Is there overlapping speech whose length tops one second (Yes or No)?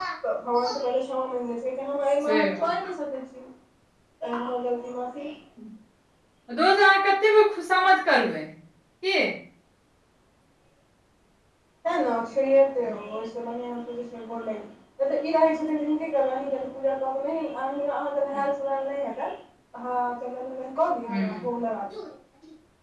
No